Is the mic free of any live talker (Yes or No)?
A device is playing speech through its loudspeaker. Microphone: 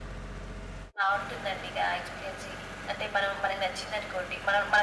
Yes